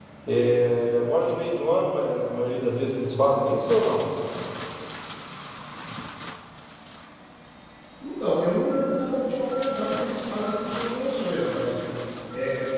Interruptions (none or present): none